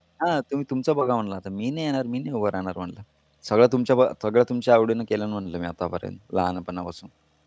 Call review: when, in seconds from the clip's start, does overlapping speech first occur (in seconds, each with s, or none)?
none